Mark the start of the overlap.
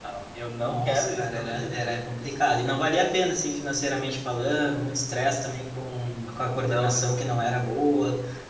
0.6 s

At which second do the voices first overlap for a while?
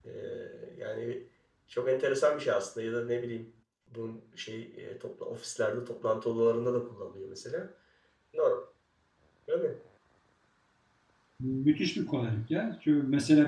none

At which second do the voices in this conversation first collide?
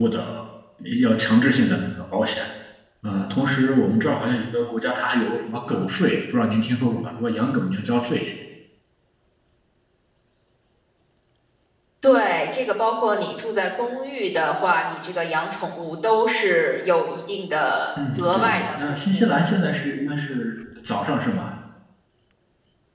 18.0 s

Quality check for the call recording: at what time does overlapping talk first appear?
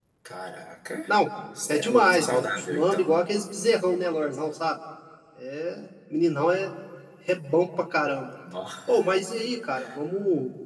1.7 s

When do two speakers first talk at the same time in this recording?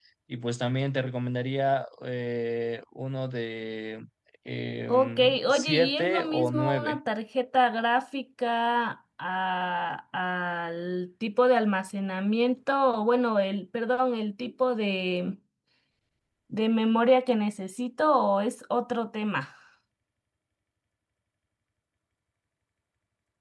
4.9 s

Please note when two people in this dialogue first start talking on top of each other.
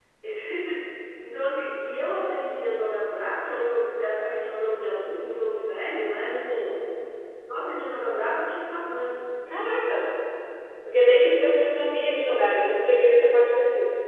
none

